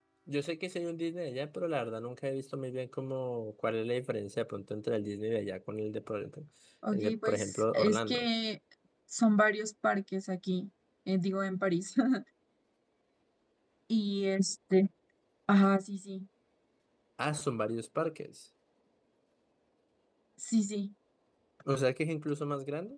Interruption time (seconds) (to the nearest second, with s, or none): 7 s